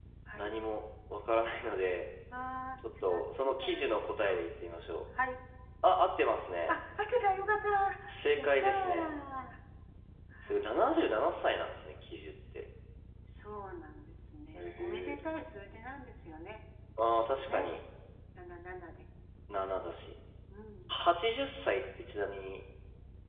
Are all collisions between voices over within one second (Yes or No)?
No